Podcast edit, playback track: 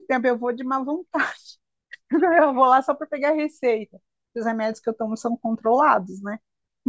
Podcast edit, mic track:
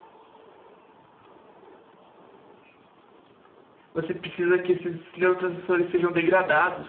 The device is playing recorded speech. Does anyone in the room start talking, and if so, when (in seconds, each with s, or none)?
3.9 s